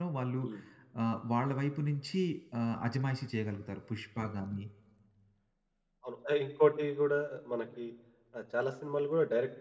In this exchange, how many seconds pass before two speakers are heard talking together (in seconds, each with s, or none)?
none